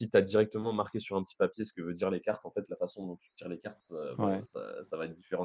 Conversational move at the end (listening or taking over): listening